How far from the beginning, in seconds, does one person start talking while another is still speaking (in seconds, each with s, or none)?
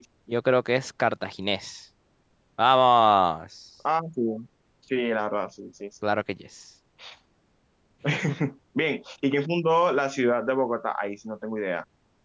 none